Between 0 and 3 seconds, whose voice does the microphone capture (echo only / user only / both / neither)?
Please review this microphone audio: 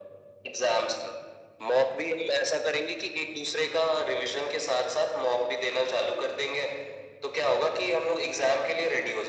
echo only